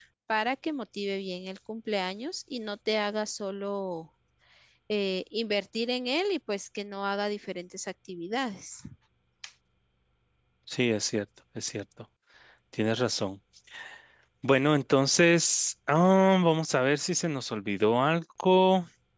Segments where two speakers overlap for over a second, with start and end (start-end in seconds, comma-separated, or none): none